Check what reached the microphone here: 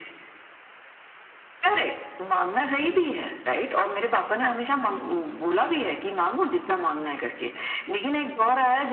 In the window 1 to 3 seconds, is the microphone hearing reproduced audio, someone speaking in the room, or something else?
echo only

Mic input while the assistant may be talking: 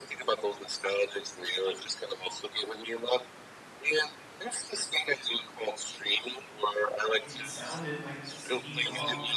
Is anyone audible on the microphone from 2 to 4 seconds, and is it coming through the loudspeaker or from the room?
echo only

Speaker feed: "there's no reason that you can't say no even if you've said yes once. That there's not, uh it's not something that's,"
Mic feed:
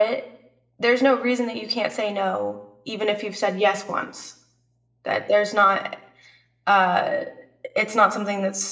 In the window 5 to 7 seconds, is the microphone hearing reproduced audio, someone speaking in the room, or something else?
echo only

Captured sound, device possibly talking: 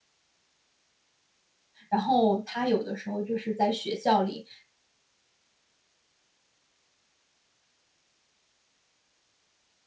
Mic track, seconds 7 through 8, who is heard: neither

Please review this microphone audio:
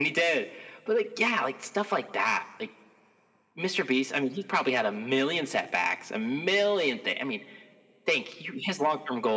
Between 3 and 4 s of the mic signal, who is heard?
echo only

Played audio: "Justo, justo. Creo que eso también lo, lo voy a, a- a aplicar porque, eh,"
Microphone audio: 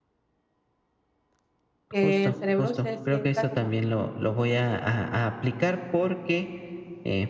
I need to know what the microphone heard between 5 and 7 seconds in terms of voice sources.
echo only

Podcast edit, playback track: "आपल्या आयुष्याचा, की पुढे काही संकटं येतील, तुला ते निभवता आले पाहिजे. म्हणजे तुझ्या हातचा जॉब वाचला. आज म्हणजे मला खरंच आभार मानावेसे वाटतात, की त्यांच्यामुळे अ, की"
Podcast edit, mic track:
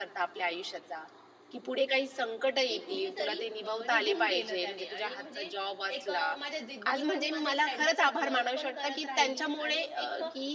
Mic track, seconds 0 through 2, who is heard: echo only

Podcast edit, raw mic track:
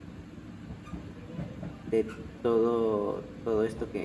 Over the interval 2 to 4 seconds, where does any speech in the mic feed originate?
user only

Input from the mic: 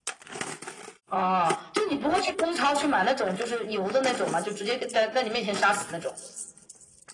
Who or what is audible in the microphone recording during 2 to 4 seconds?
echo only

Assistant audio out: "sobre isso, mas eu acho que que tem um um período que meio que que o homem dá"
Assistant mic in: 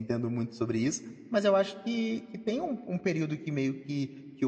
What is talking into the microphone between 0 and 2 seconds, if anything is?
echo only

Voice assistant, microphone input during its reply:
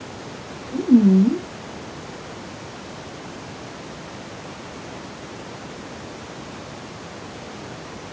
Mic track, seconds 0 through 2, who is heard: user only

